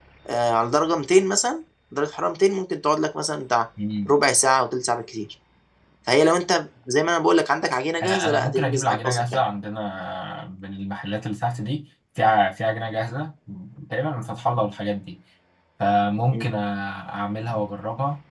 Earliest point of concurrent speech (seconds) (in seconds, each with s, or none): 8.0 s